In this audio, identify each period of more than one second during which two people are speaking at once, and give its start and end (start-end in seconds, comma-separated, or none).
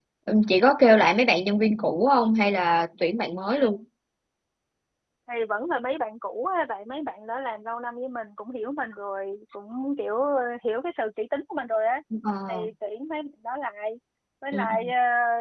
none